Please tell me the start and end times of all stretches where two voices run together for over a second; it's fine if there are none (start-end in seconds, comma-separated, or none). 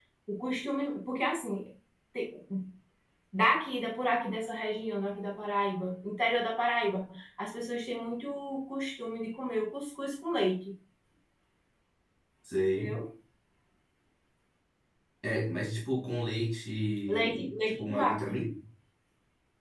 17.1-18.3